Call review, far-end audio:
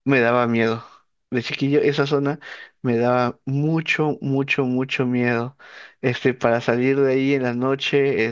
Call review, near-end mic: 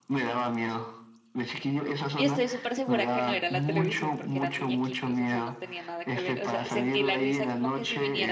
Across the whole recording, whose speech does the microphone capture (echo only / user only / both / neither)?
both